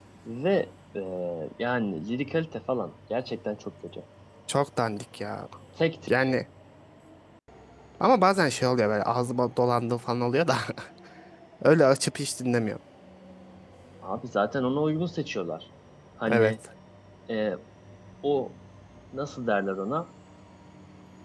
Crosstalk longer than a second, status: none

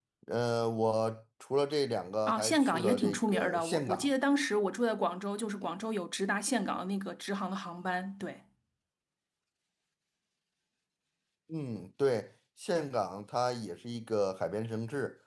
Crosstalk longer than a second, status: present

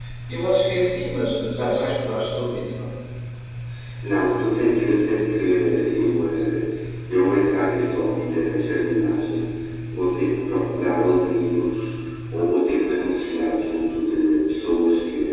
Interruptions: none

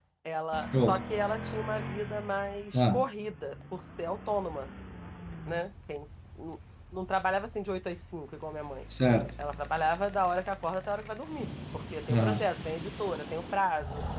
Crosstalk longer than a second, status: none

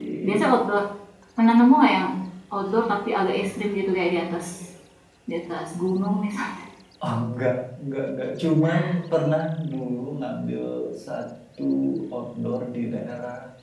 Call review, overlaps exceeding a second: none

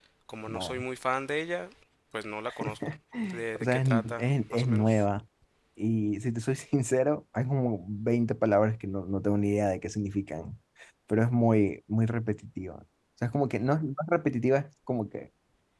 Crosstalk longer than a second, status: present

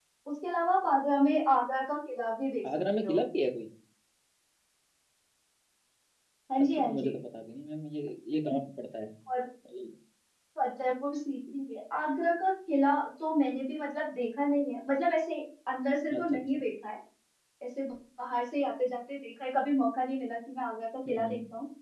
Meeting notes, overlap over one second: none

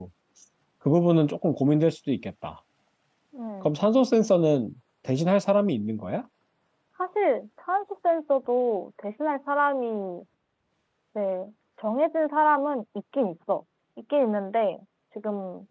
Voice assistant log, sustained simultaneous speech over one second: none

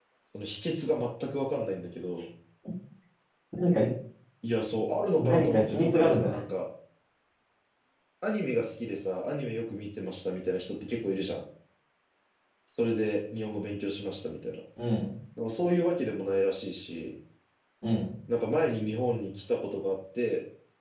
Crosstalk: present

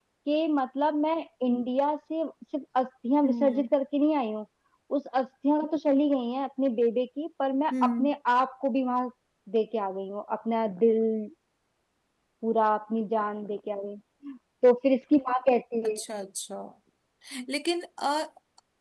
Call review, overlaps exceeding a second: none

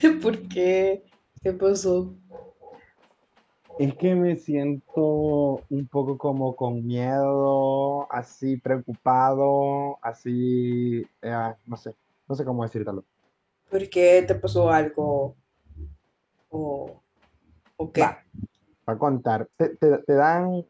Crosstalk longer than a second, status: none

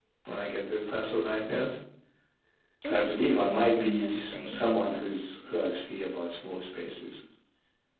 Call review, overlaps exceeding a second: present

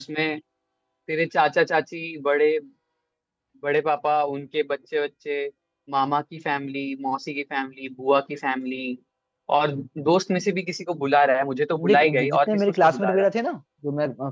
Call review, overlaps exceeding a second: present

